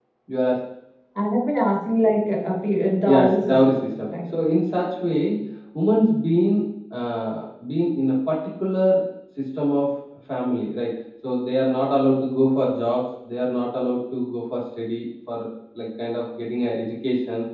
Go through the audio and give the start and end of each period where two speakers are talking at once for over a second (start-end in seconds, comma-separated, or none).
3.1-4.4